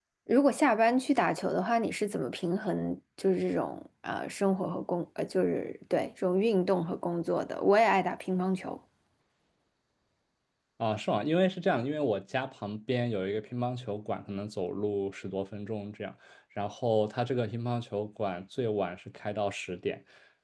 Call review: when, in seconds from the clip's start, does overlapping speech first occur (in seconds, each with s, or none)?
none